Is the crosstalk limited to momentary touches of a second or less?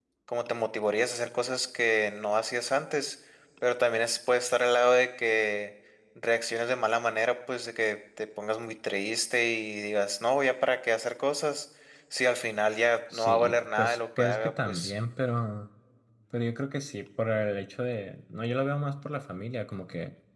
No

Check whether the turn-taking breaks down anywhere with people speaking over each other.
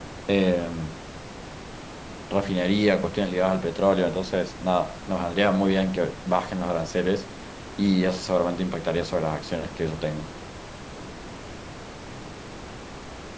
No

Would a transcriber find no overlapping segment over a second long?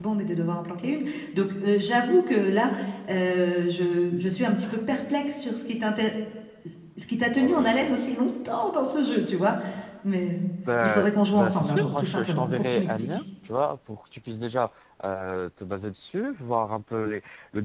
No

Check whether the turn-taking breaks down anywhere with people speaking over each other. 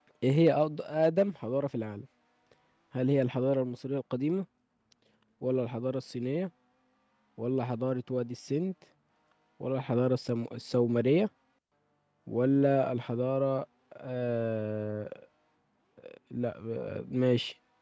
No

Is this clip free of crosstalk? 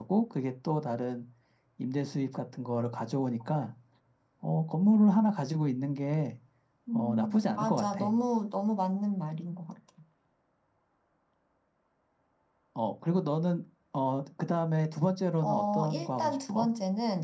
No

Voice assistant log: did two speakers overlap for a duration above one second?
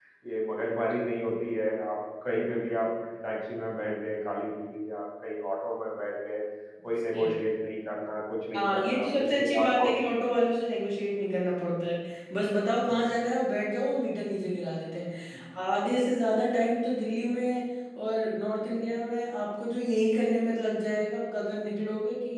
Yes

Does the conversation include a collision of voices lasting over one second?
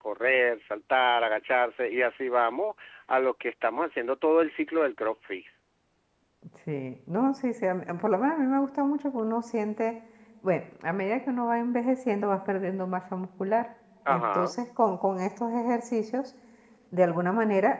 No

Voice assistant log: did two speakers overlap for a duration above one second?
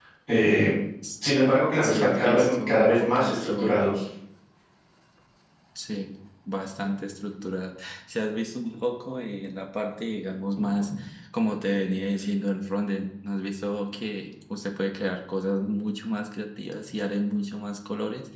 Yes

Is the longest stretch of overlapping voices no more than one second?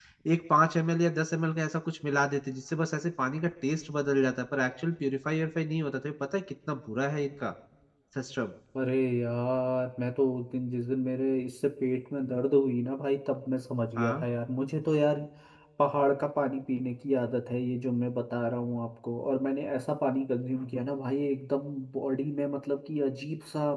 Yes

